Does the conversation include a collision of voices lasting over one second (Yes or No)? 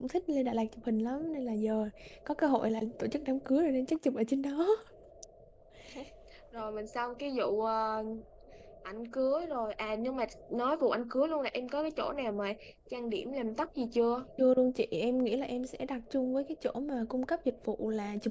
No